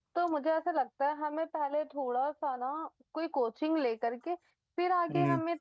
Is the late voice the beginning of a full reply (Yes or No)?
No